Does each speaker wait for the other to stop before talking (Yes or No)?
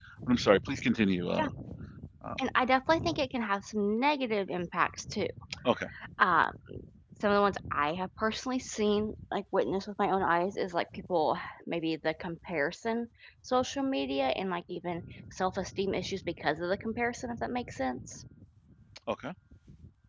Yes